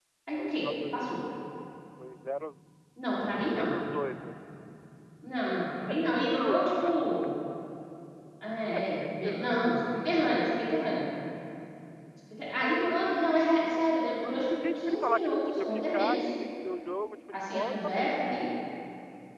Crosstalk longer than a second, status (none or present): present